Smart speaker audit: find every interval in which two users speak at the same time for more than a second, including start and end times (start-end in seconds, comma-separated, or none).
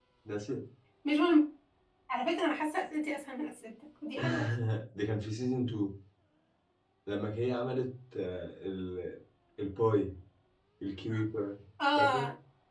none